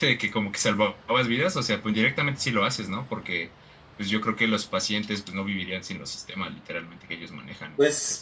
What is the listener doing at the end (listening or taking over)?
taking over